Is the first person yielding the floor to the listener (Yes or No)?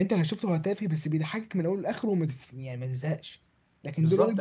Yes